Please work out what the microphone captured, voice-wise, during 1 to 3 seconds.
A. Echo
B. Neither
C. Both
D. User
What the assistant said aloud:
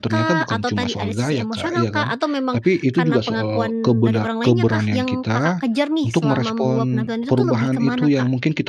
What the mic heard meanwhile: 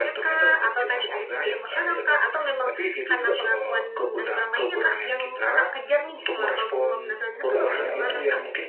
A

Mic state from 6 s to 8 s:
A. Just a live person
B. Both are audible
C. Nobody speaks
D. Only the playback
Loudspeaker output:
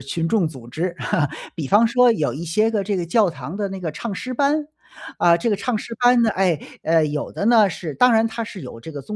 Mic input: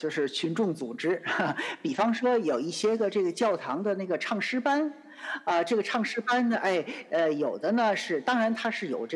D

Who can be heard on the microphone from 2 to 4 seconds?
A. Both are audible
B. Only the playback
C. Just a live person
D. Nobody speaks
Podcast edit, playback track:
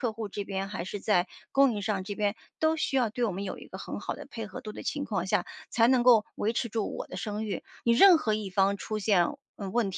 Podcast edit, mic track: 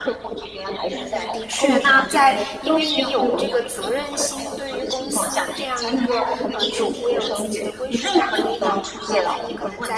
A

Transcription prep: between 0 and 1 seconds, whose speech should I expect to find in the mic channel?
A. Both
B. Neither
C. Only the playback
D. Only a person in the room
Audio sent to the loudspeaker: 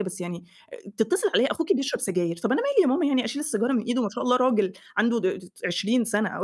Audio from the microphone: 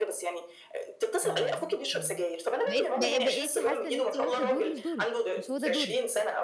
C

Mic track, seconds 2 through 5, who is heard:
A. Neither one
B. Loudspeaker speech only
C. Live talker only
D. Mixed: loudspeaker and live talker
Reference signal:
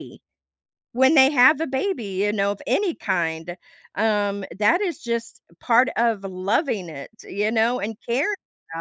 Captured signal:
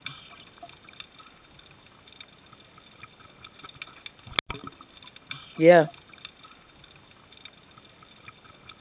A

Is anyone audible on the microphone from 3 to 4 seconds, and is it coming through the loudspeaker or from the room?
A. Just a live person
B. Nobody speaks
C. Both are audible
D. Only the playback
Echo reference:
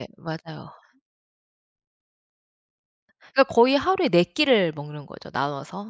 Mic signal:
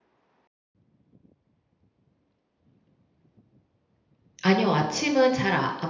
B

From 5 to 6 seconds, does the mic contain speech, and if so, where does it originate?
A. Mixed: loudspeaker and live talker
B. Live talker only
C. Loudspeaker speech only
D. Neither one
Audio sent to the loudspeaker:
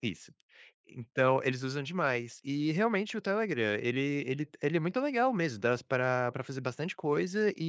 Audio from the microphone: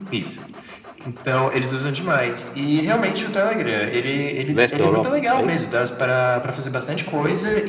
A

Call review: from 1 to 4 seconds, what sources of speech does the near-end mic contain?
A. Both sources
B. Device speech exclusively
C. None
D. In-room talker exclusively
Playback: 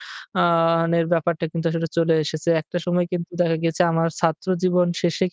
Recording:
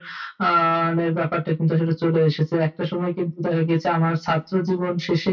B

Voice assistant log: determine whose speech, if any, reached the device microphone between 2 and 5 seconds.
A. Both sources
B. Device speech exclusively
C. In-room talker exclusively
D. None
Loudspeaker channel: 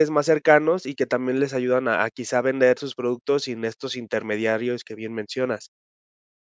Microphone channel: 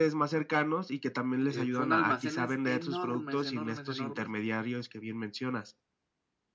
A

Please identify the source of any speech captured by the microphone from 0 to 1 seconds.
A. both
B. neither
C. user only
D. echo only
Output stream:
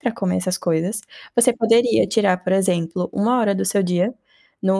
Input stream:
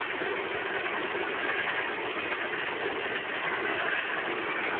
B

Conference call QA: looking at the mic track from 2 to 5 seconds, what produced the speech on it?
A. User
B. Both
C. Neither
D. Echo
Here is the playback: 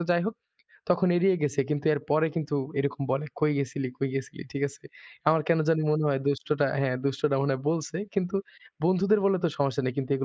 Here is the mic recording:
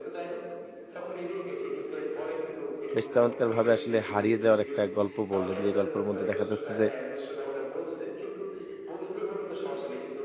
B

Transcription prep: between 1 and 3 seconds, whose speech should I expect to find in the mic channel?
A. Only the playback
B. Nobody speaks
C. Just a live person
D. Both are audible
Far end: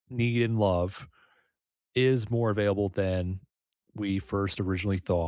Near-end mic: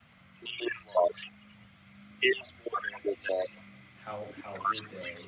A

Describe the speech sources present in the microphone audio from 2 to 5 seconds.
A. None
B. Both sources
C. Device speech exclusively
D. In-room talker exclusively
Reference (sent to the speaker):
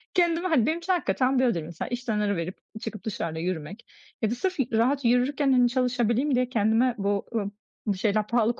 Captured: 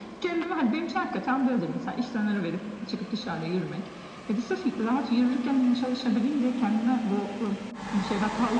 C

